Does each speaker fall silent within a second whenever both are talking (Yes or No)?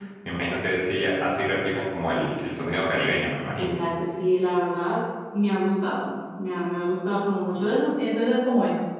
Yes